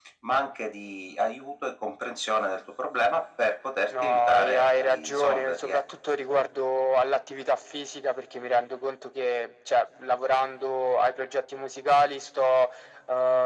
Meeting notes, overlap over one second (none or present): present